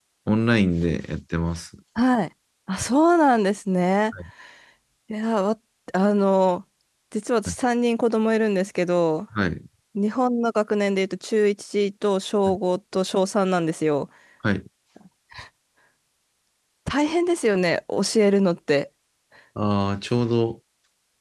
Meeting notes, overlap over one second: none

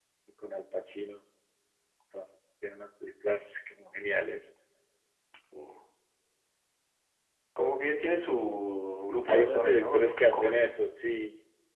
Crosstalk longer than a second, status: present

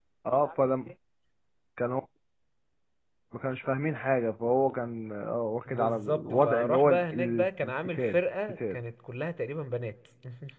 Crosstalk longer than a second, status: present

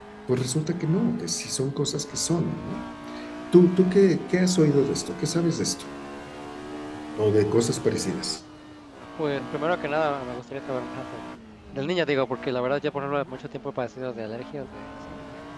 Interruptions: none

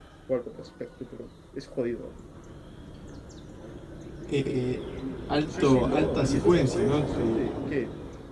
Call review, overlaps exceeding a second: present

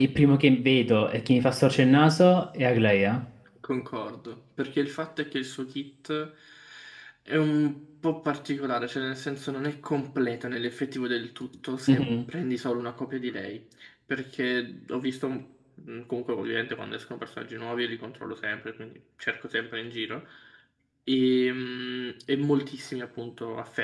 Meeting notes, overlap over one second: none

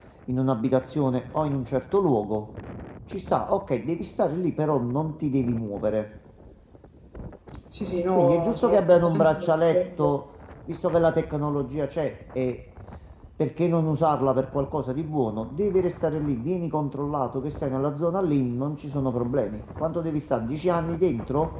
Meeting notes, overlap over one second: present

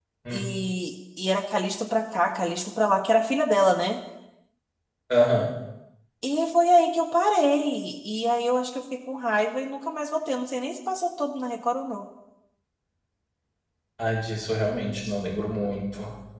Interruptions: none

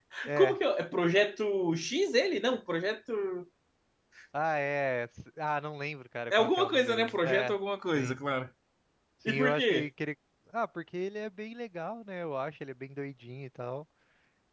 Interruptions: present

